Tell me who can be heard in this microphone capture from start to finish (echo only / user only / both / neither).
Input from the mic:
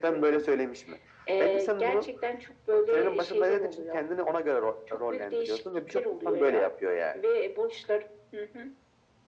echo only